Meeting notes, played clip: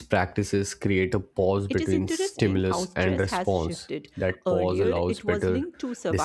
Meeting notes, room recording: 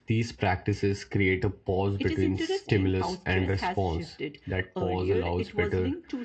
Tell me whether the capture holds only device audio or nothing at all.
Yes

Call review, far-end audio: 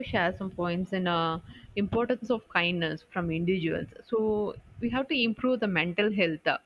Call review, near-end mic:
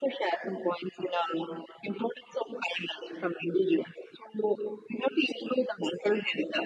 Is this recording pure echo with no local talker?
Yes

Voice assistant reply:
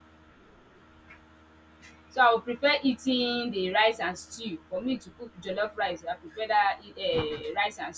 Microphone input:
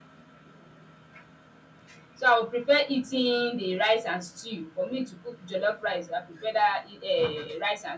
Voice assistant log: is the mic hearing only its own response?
Yes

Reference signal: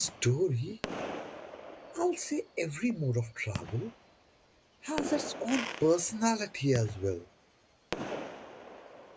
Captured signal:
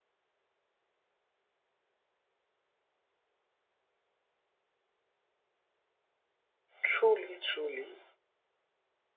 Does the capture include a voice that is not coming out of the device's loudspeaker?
Yes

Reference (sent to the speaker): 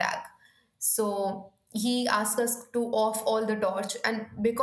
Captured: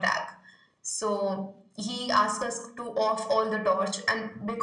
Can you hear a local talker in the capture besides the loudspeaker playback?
No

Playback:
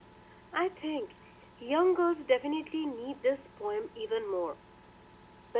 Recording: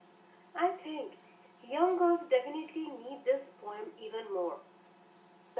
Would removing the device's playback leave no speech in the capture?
Yes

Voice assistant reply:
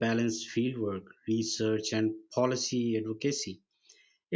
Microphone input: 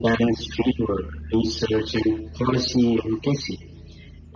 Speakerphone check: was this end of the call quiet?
Yes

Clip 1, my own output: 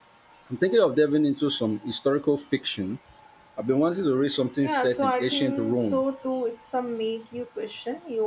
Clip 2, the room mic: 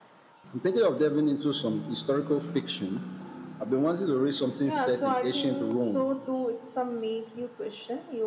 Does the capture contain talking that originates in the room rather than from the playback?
No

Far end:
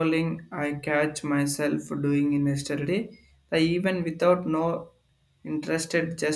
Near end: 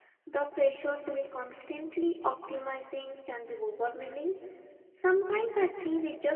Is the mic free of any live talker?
No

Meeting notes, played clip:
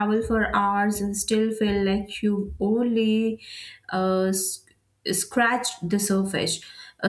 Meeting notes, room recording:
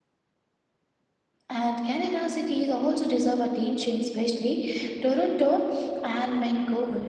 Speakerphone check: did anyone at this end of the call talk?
Yes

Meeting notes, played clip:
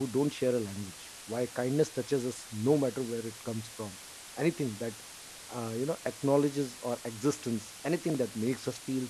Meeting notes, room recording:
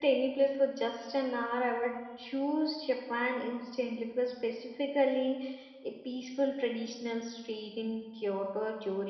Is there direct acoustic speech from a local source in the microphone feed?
Yes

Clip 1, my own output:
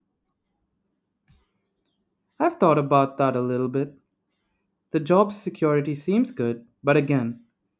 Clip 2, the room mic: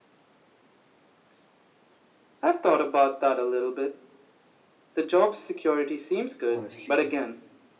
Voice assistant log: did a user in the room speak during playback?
Yes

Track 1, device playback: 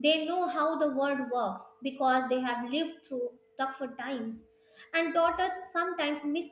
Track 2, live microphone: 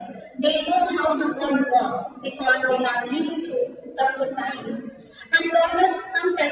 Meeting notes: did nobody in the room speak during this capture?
Yes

